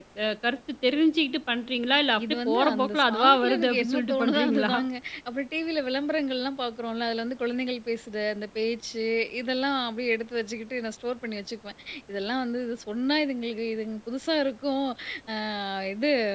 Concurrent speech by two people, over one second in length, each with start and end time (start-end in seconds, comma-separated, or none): 2.3-4.7